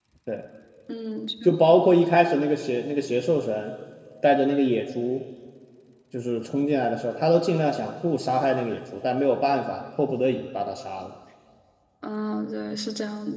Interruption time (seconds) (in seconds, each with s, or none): none